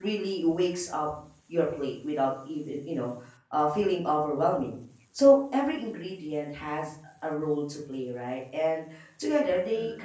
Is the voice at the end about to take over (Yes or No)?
No